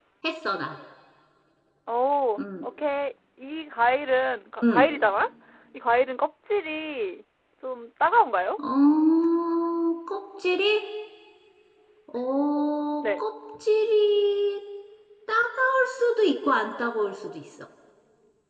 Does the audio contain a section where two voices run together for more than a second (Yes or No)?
No